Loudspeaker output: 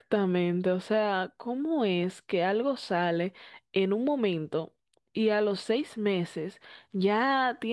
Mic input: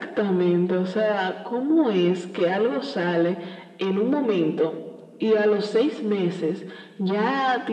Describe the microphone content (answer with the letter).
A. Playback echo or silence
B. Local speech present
A